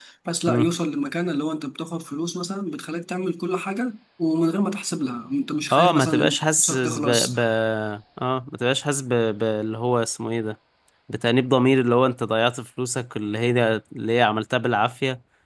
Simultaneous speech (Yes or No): Yes